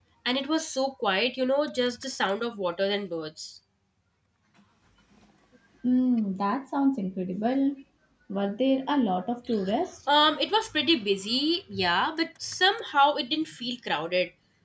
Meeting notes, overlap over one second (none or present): none